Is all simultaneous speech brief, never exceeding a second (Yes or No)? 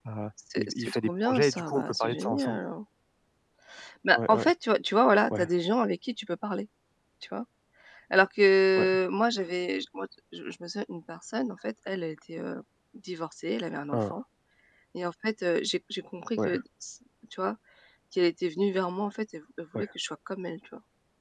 No